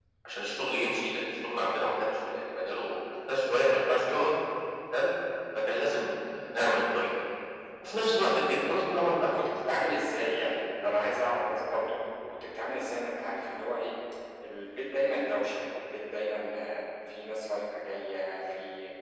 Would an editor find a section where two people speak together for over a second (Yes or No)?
No